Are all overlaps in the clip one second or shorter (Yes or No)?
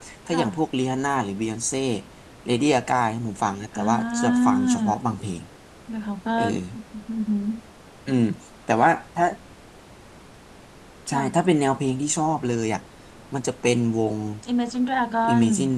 No